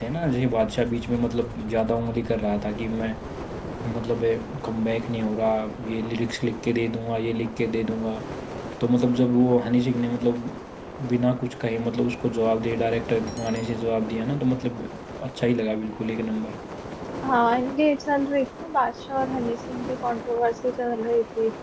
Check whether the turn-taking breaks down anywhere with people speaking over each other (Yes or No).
No